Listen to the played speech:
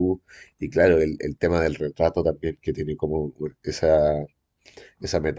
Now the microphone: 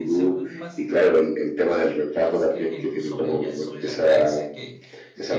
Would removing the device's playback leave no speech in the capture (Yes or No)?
No